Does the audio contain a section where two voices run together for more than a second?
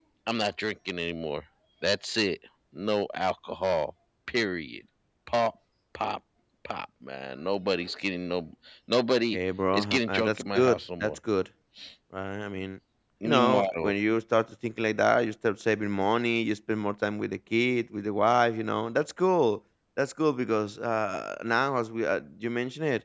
Yes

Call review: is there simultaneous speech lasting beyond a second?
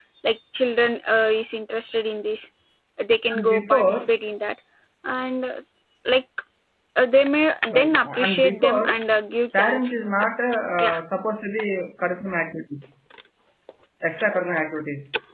Yes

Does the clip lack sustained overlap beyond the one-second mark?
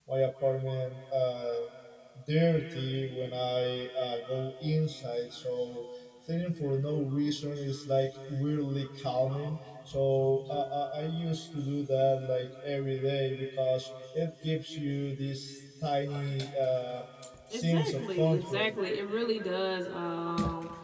No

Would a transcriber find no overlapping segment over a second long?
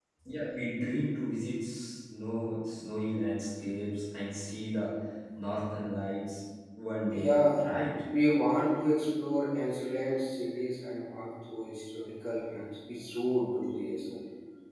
Yes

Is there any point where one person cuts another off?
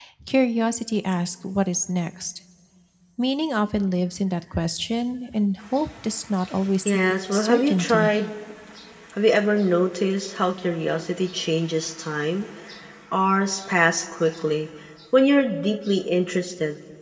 Yes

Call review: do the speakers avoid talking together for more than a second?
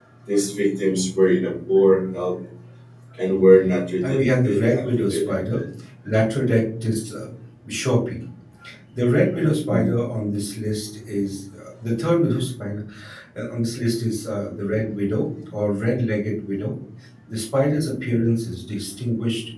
No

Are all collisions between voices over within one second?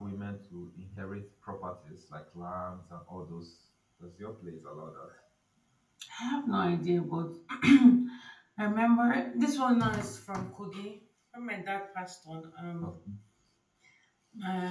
Yes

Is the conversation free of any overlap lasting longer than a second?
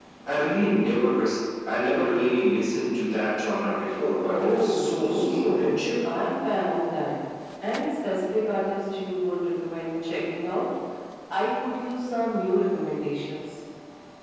No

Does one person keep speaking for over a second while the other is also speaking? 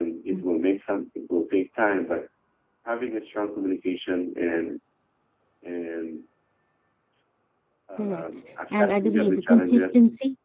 Yes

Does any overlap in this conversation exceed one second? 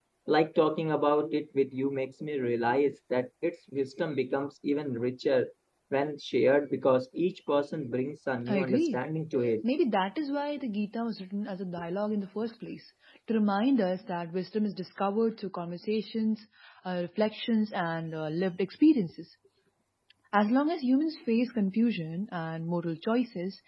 No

